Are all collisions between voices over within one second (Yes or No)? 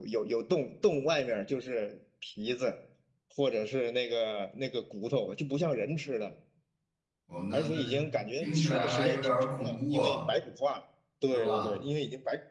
No